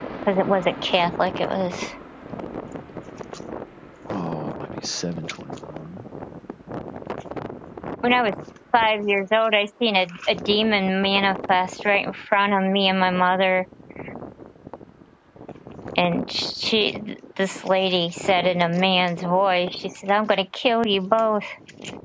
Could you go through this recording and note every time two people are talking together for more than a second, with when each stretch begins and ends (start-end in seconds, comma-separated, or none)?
none